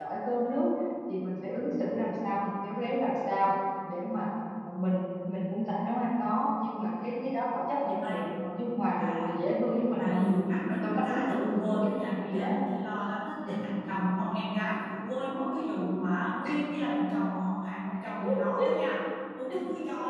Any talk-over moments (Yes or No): Yes